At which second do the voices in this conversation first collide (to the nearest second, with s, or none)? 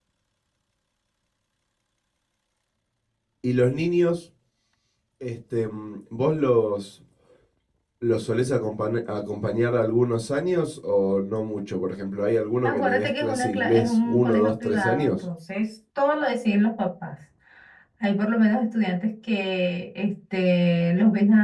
13 s